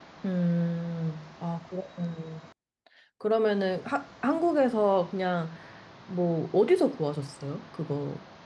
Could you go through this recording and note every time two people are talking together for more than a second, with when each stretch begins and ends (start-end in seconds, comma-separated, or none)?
none